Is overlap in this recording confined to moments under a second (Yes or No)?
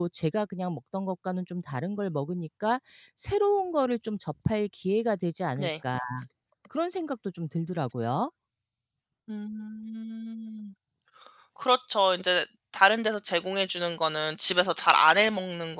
Yes